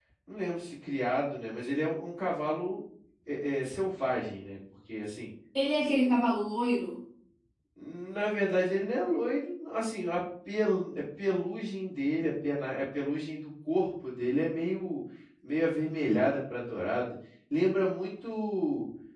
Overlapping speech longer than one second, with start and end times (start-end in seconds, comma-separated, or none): none